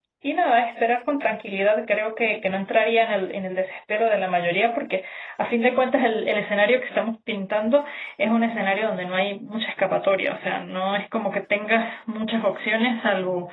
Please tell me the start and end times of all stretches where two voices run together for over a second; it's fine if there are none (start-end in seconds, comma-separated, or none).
none